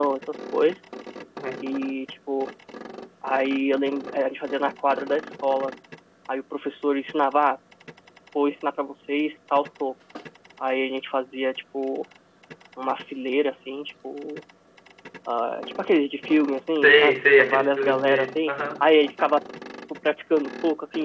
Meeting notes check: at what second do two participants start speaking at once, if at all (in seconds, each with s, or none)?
16.8 s